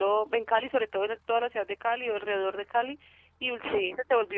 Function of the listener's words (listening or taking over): listening